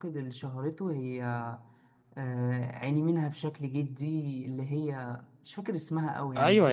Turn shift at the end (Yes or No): Yes